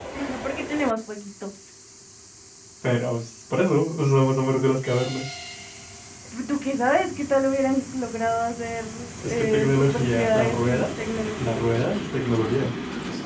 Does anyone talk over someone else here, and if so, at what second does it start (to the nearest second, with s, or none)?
9 s